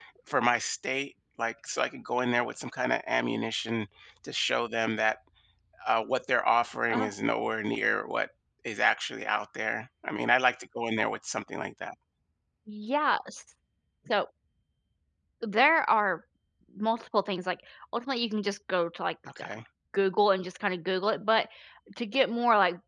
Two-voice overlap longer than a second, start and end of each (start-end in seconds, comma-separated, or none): none